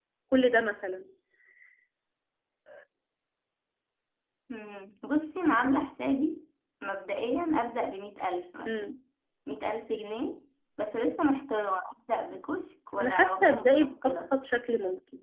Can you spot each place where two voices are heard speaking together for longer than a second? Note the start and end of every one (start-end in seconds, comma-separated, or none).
13.0-14.3